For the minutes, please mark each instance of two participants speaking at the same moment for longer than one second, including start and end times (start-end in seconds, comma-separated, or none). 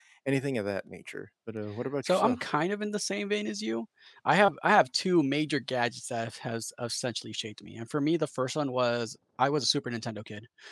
none